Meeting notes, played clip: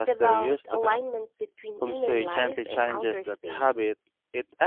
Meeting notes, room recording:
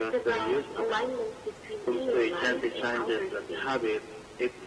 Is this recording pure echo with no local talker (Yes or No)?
Yes